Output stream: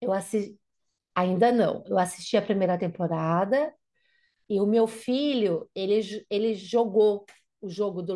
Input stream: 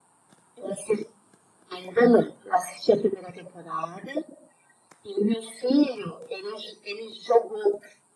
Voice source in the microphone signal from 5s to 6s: echo only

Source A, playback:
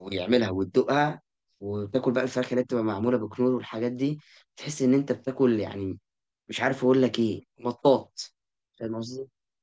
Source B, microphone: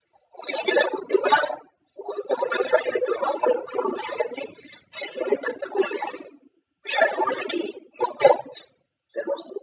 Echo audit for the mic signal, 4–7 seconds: echo only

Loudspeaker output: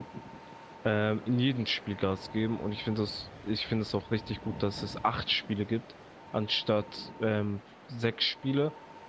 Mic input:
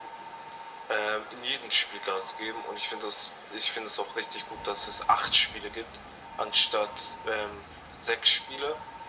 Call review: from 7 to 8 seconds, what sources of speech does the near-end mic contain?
echo only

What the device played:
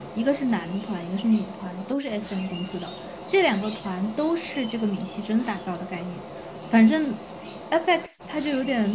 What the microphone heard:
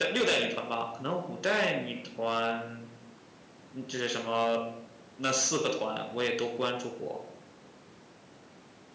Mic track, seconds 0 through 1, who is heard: user only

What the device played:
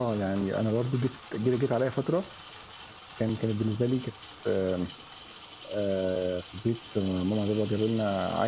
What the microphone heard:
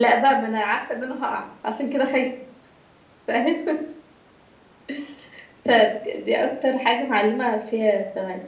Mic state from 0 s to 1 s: user only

